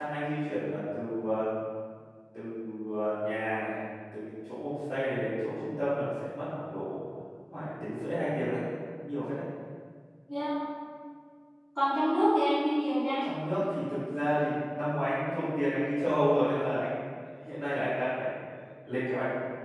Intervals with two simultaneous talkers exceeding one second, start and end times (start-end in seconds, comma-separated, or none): none